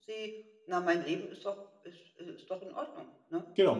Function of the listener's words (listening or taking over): taking over